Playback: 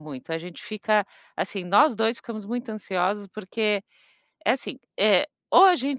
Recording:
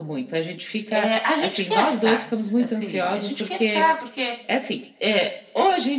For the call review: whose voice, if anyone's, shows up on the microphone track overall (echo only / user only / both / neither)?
both